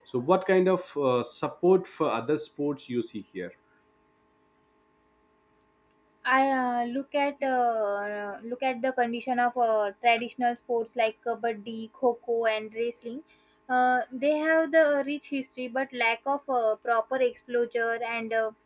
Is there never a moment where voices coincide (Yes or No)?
Yes